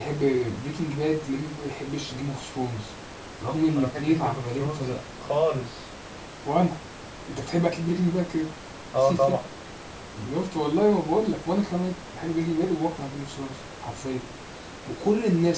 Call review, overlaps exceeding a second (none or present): present